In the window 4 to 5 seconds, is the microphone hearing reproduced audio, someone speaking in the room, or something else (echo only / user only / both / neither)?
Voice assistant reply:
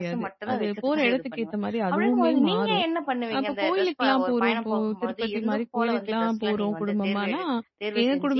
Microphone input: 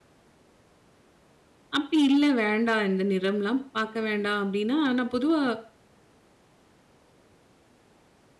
user only